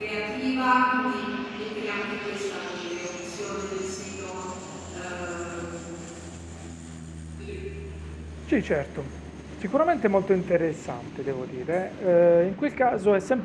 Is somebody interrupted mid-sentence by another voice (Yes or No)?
No